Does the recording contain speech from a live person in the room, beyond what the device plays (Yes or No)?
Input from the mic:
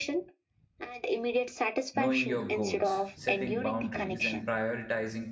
Yes